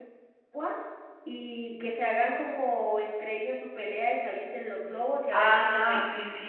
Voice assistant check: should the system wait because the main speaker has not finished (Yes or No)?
No